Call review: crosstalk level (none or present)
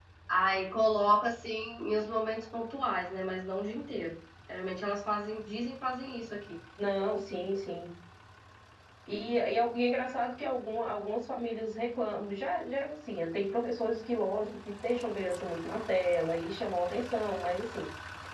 none